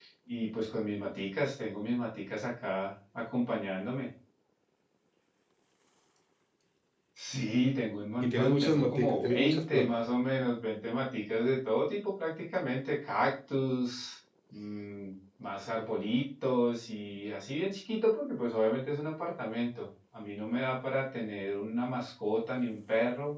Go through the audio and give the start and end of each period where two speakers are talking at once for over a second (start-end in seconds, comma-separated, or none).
8.2-9.9